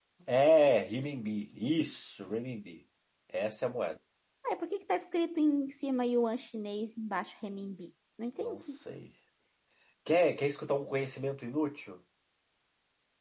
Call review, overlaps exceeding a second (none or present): none